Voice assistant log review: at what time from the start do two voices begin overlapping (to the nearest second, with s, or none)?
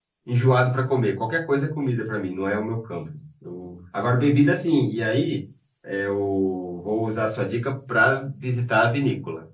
none